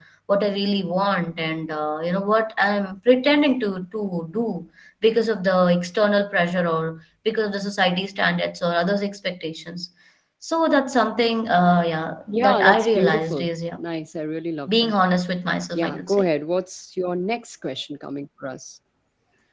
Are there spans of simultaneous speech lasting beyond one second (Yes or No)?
Yes